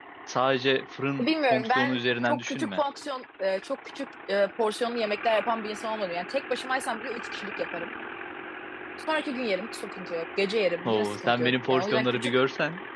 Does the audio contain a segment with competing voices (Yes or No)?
Yes